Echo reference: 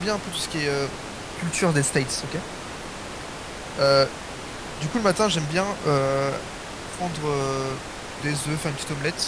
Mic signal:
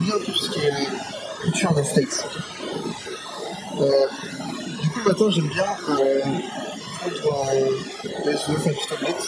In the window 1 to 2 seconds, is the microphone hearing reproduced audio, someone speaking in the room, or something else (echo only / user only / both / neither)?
echo only